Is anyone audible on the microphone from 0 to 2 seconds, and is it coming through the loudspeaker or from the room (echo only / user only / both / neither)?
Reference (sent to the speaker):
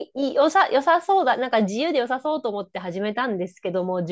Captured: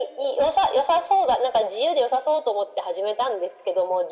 echo only